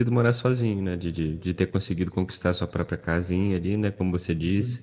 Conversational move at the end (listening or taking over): listening